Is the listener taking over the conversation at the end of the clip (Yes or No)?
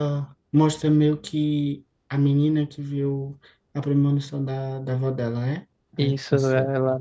Yes